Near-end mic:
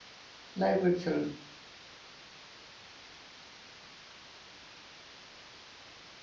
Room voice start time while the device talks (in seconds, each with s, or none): 0.5 s